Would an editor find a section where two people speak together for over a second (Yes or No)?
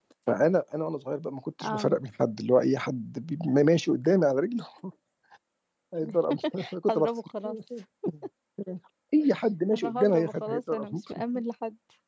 Yes